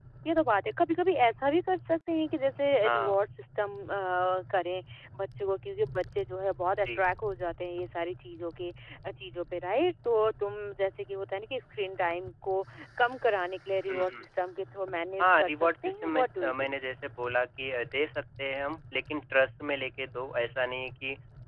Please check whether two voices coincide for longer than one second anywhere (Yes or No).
Yes